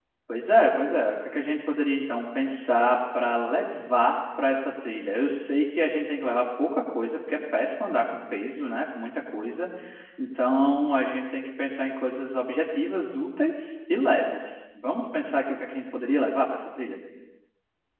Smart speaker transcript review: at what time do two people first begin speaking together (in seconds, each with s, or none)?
none